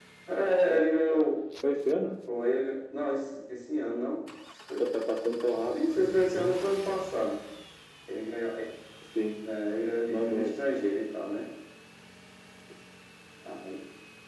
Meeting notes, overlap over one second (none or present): none